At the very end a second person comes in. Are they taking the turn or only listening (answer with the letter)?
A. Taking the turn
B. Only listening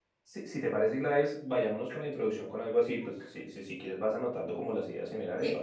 A